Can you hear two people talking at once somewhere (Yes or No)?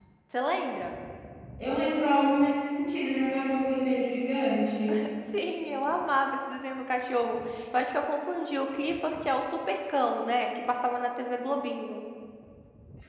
No